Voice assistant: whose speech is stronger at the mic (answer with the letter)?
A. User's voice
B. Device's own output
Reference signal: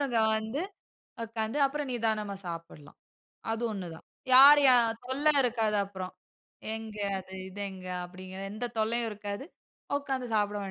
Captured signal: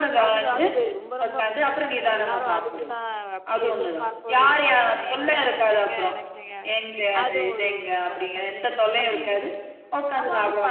B